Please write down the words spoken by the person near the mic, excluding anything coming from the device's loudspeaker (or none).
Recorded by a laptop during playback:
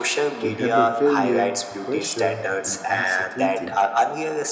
to handle failure, pressure, and uncertainty